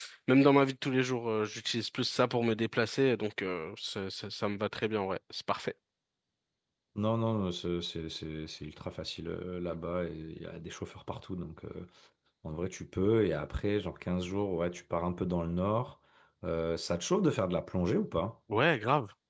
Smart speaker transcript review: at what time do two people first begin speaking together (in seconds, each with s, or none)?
none